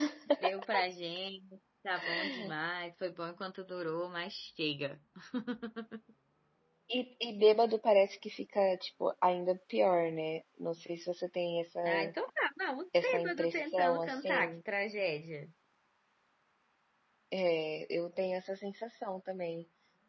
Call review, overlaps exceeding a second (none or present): present